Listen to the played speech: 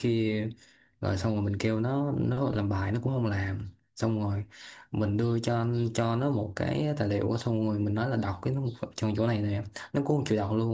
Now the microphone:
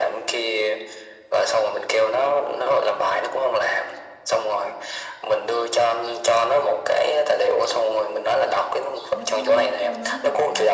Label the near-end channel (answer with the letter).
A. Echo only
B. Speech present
B